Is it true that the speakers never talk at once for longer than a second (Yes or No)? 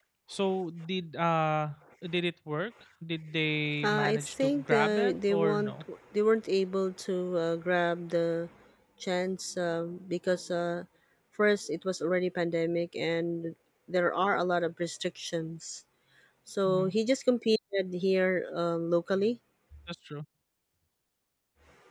No